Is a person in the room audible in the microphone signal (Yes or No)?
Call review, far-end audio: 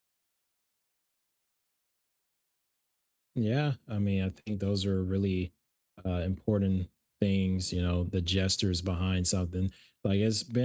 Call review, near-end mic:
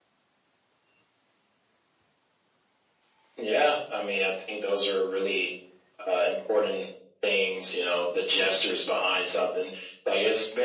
No